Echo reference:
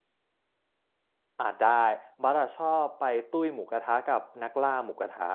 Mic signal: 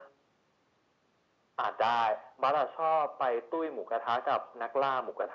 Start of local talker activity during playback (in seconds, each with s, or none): none